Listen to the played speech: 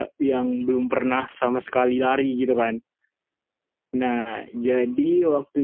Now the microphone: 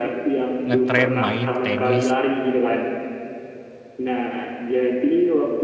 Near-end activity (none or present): present